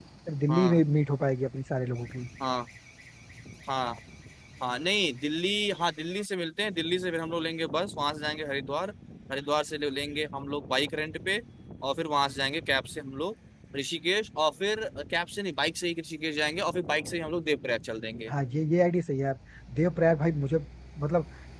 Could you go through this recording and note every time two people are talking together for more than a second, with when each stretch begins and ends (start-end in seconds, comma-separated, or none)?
none